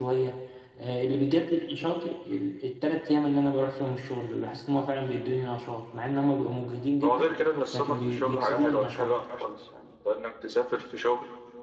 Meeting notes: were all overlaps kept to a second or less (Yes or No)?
No